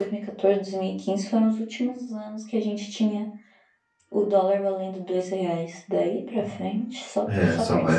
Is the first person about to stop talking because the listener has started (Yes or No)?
Yes